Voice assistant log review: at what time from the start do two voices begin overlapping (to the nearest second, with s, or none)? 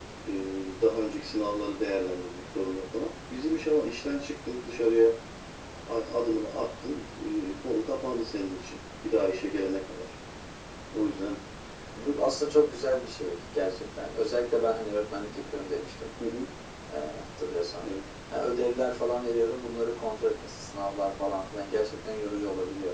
none